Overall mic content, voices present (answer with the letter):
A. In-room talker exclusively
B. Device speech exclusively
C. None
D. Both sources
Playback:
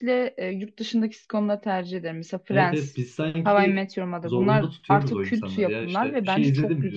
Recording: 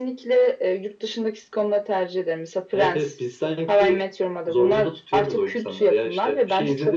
B